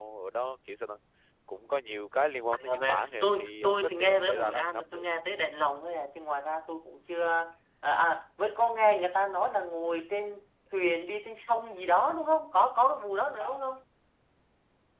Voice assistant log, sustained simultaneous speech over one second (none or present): present